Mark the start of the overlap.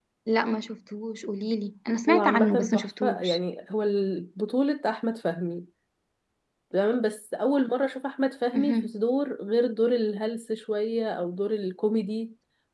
2.1 s

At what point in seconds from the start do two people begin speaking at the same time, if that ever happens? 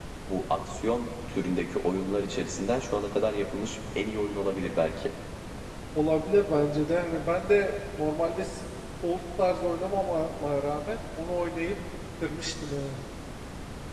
none

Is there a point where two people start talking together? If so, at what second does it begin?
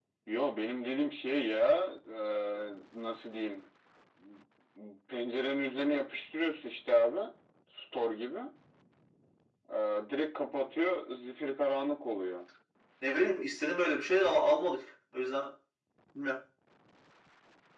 none

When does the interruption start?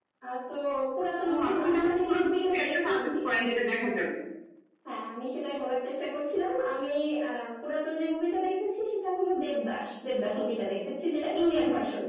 1.3 s

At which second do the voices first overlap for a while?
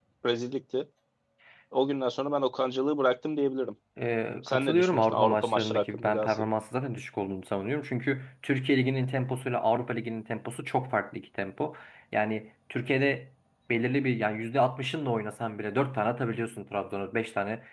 4.4 s

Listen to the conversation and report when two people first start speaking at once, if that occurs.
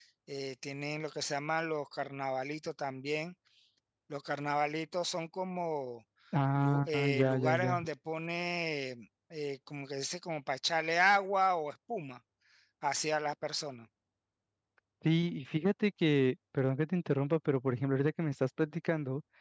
6.5 s

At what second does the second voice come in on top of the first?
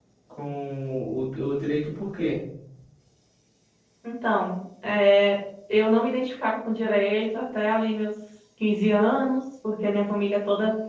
none

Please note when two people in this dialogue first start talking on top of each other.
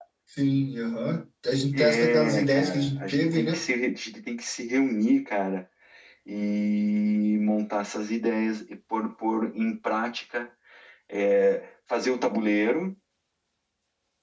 1.7 s

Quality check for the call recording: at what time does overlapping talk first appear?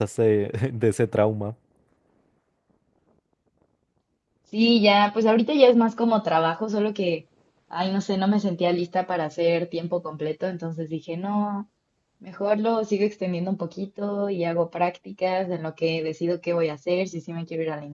none

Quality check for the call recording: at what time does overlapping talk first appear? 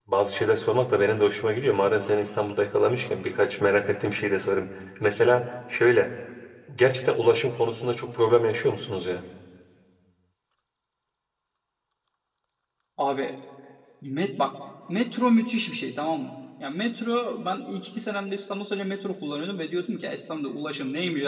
none

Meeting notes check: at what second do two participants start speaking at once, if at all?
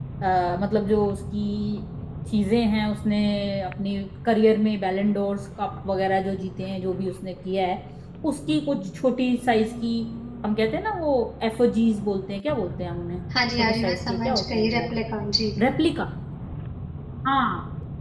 13.3 s

